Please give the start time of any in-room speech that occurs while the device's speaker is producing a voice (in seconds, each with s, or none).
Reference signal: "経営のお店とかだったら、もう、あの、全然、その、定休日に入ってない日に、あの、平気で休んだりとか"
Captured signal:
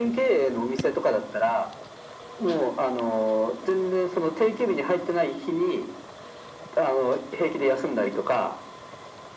none